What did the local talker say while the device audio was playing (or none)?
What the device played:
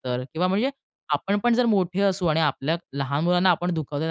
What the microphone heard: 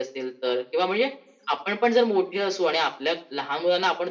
none